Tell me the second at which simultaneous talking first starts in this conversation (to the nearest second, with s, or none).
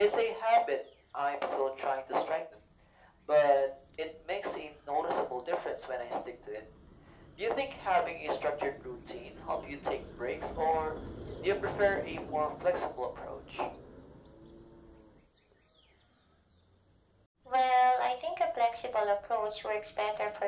none